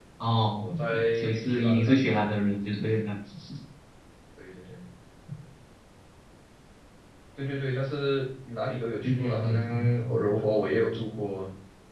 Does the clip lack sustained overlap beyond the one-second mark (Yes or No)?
No